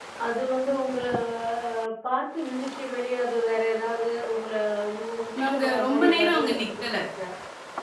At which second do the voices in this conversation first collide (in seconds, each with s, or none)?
5.4 s